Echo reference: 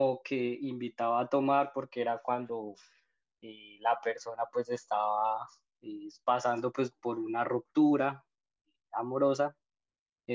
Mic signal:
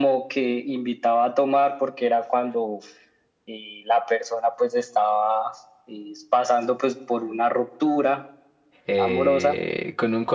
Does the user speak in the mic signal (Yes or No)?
Yes